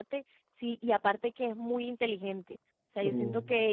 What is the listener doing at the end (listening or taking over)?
listening